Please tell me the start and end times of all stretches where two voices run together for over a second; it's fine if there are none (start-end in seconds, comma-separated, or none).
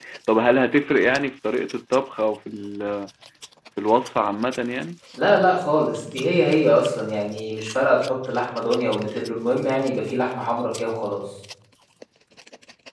none